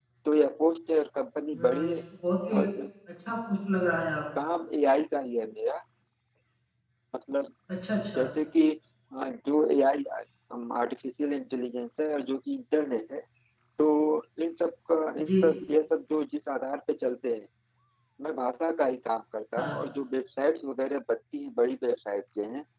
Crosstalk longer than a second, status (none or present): none